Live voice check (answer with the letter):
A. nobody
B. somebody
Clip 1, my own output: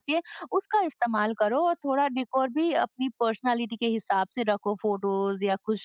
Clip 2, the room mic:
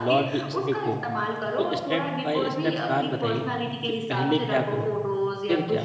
B